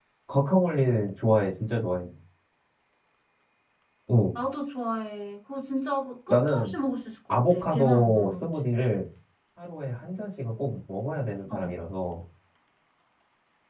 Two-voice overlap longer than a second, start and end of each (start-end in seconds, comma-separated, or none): 7.3-8.6